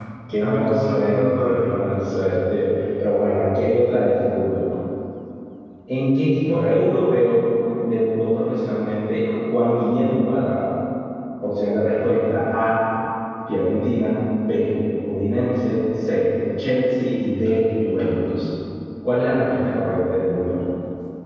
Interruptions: present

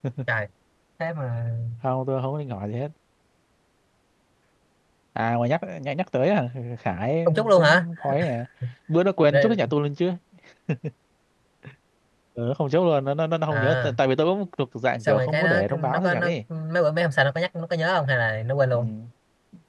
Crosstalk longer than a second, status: present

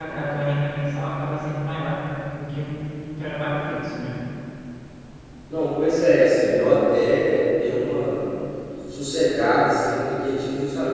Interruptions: none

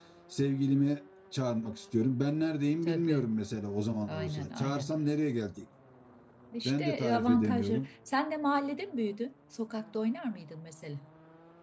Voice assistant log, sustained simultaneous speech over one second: present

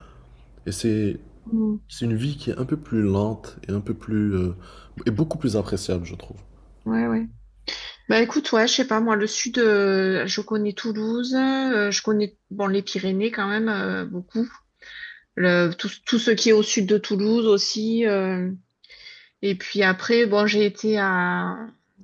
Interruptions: none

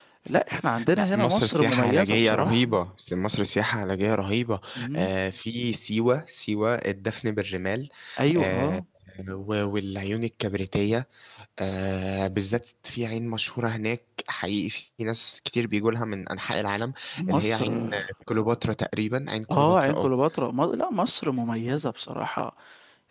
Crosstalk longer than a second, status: present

